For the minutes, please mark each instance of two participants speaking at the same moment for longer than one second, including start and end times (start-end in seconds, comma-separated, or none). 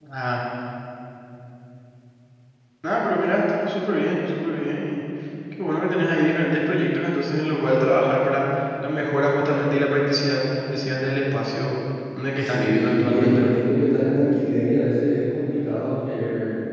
12.4-13.6